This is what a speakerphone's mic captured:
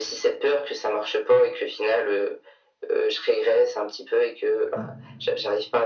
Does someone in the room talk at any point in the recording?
Yes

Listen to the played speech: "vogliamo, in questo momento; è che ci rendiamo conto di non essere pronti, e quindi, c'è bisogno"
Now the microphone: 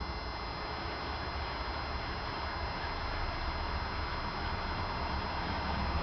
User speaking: No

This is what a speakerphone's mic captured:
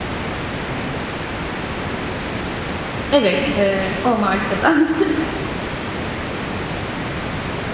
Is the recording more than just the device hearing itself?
Yes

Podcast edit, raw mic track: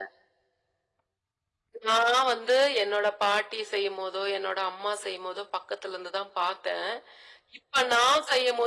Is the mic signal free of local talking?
Yes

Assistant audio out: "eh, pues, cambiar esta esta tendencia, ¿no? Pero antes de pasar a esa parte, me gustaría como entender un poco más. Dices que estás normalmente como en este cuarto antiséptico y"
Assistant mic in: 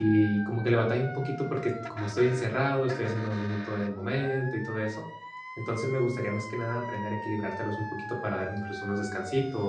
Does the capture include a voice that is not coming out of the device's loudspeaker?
Yes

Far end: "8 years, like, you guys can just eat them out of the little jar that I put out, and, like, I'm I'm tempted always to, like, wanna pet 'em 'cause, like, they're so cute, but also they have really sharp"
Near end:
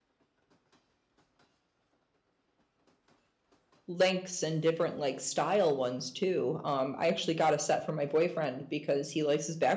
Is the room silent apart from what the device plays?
No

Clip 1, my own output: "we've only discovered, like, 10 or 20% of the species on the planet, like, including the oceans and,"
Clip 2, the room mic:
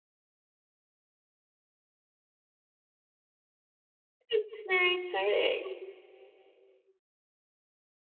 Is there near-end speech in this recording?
Yes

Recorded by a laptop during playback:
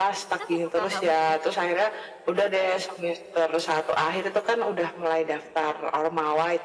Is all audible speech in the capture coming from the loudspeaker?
No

